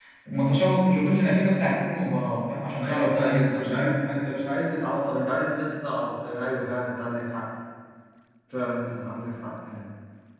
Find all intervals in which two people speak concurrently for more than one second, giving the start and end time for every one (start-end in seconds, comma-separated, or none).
2.8-4.1